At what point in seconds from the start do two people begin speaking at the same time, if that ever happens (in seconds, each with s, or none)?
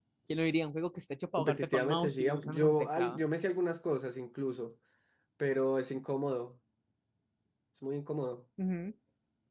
1.4 s